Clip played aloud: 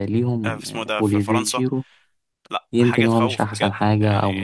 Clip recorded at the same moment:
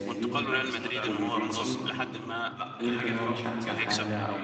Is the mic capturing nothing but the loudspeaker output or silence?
No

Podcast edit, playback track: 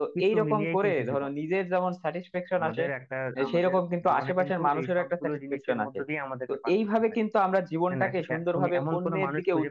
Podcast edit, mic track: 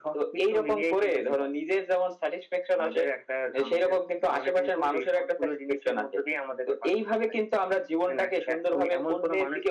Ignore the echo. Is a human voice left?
No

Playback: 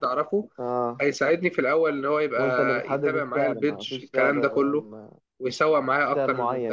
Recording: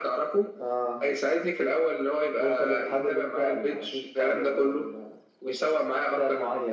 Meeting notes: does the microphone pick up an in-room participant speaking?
No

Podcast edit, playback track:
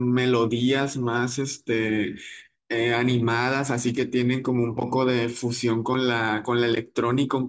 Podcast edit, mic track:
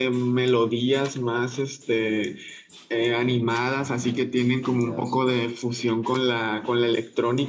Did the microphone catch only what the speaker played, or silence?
No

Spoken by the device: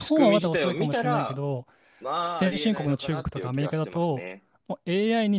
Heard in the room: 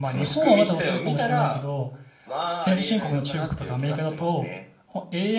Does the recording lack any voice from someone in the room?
Yes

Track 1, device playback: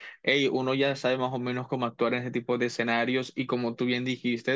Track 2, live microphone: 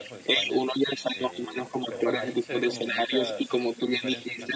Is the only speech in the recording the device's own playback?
No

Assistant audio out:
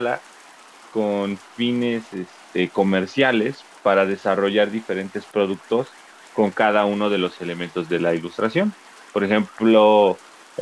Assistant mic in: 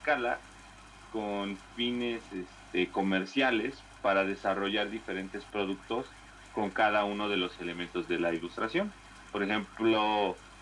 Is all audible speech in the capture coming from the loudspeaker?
Yes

